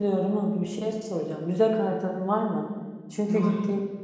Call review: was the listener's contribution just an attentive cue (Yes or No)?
Yes